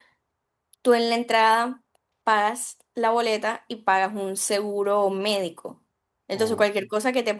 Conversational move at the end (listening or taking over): listening